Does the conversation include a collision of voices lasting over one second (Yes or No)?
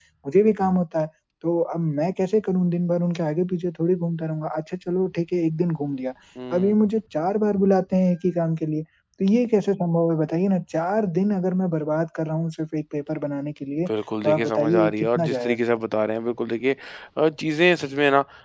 Yes